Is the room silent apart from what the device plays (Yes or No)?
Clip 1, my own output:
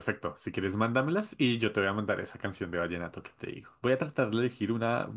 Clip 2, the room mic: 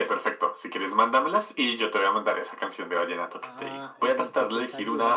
No